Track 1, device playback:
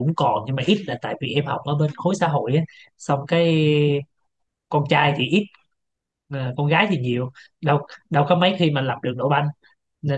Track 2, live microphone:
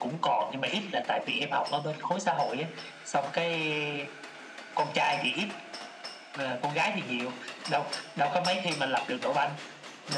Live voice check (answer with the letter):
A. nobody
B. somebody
A